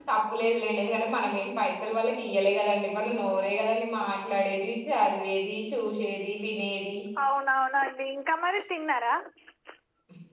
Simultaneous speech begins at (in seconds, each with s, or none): none